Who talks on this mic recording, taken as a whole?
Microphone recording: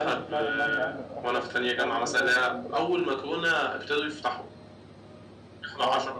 both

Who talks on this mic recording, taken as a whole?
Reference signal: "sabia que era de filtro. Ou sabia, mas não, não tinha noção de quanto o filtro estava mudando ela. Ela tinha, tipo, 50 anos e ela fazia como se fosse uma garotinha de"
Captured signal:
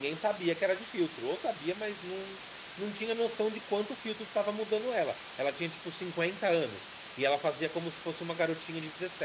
echo only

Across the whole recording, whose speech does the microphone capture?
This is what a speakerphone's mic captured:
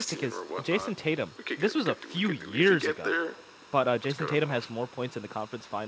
both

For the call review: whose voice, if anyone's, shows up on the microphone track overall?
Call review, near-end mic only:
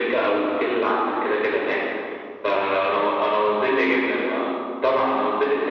echo only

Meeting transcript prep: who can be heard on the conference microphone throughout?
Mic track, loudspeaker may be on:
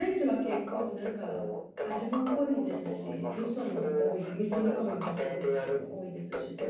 both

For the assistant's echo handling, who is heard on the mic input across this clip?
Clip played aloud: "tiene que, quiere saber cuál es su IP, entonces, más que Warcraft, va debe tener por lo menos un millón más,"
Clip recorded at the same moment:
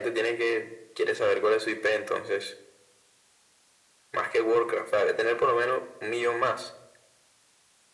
echo only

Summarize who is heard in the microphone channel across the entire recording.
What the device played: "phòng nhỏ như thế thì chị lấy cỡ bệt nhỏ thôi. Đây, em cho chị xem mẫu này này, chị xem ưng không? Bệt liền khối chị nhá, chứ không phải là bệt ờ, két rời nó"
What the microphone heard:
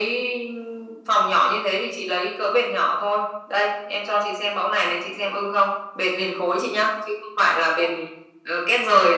echo only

